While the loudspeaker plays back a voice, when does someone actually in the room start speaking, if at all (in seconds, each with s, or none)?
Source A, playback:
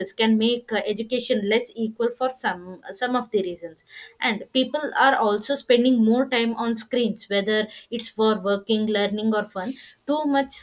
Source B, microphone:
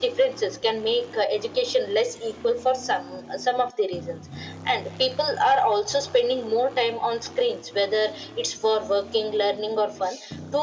none